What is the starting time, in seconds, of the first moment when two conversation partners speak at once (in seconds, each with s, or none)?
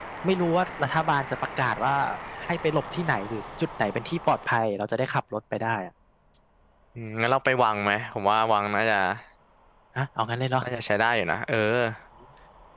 none